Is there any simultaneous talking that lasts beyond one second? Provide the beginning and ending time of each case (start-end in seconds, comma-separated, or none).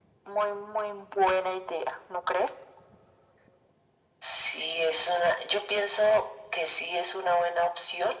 none